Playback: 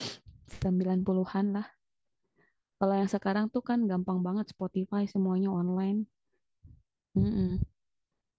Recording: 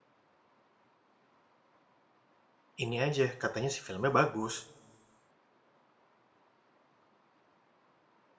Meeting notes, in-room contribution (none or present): present